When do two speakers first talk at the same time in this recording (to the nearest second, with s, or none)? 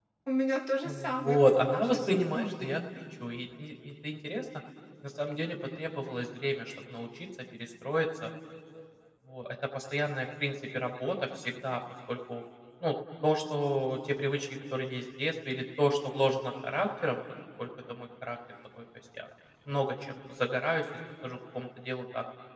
1 s